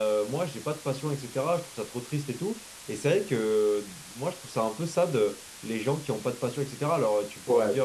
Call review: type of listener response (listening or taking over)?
listening